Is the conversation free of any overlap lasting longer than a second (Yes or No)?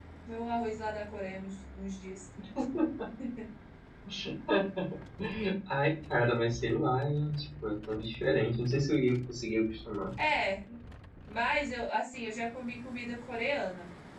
Yes